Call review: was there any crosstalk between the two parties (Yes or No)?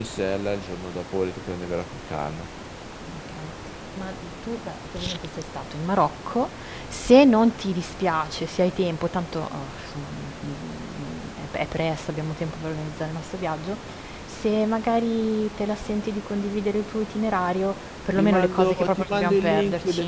Yes